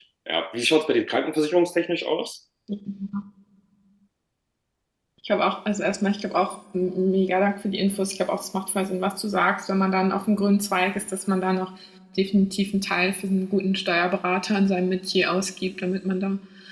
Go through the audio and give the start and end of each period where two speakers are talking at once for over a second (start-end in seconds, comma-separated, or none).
none